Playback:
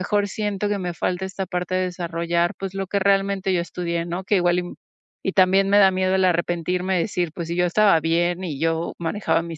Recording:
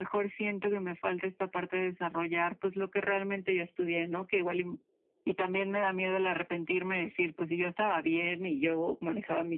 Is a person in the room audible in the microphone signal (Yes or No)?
No